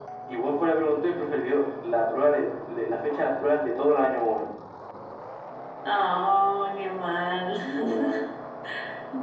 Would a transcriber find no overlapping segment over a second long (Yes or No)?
Yes